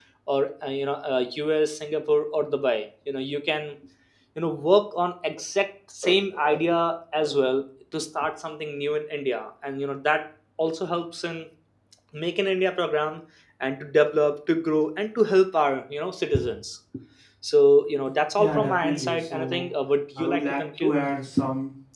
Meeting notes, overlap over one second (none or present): present